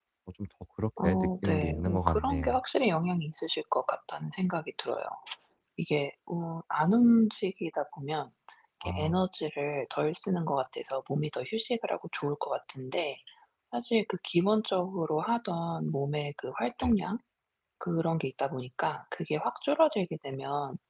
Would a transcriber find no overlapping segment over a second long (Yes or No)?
No